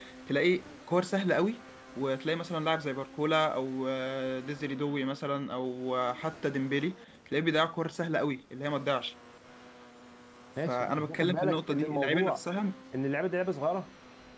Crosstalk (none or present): present